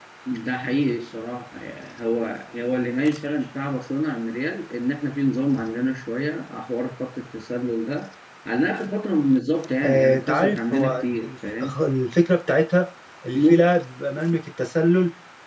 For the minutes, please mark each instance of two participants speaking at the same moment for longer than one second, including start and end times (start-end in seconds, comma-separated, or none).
9.8-11.8